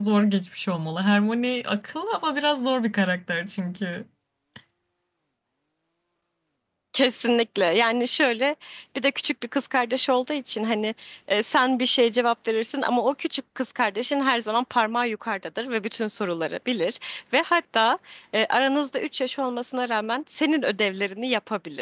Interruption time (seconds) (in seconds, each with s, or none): none